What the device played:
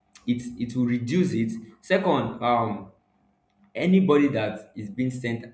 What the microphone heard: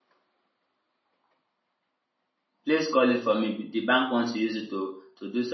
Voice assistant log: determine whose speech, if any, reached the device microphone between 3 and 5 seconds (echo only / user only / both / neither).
user only